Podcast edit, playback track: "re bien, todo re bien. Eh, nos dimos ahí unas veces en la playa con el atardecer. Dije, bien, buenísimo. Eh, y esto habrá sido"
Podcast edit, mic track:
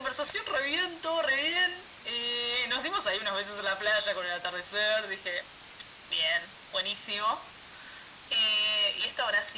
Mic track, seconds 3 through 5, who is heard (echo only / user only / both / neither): echo only